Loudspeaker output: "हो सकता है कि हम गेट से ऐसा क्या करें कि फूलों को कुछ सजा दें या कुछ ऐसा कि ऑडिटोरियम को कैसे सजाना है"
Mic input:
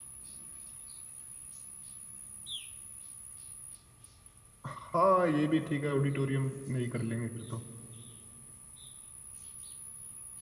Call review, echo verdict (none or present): none